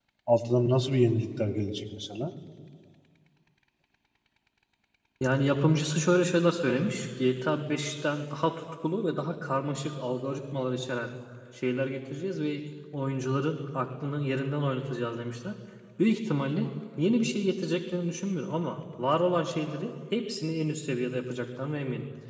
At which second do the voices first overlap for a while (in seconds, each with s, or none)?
none